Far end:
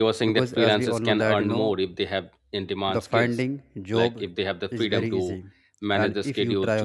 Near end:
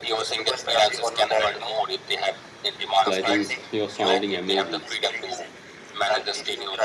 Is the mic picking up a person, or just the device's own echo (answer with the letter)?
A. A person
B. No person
A